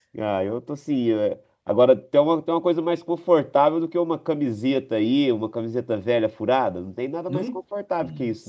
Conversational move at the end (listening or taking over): taking over